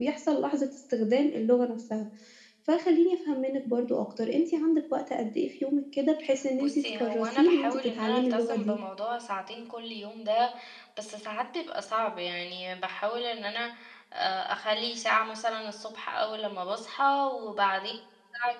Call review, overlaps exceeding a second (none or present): present